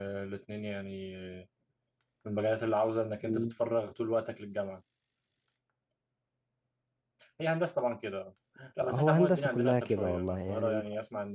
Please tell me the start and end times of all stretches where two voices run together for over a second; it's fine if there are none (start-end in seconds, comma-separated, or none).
8.8-10.8